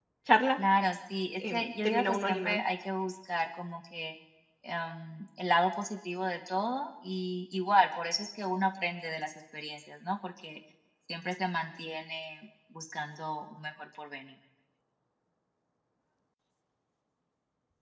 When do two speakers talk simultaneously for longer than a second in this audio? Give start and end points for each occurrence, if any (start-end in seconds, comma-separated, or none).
1.4-2.6